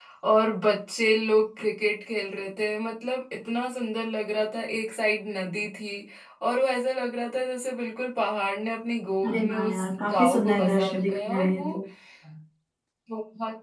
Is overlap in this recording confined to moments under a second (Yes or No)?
No